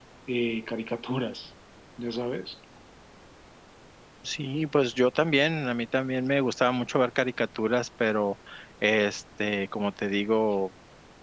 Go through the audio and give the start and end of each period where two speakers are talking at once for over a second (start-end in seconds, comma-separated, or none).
none